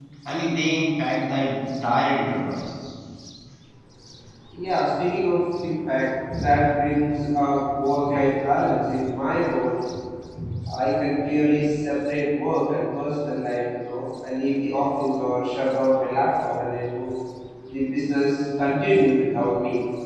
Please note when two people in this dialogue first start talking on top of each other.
none

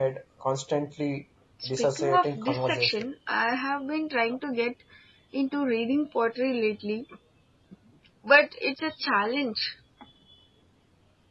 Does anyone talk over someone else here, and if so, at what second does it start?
1.7 s

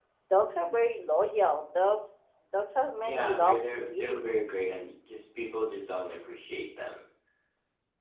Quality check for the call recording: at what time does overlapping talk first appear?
3.0 s

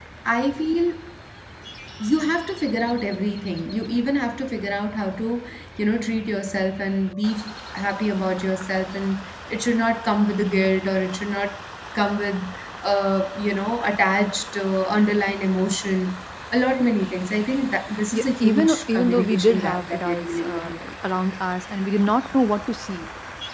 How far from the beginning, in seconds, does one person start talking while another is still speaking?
18.1 s

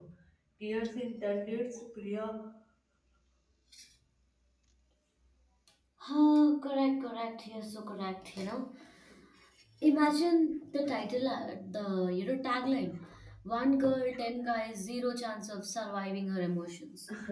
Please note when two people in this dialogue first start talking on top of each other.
none

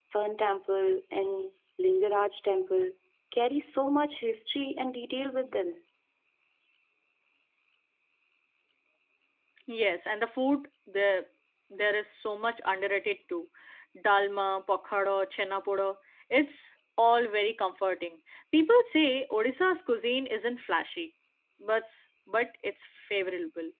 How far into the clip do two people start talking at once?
none

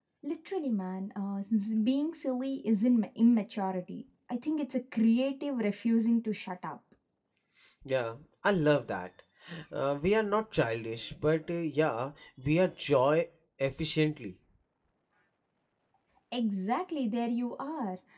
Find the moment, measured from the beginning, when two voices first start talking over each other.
none

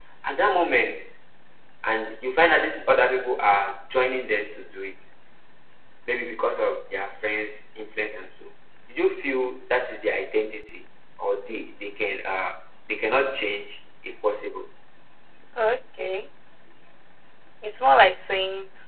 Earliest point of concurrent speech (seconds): none

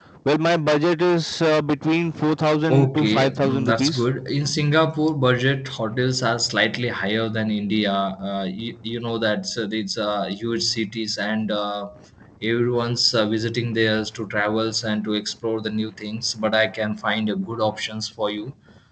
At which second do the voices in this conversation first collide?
2.7 s

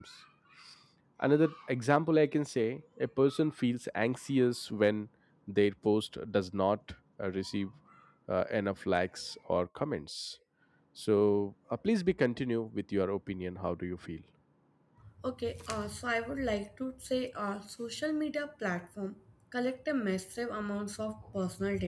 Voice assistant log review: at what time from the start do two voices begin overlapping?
none

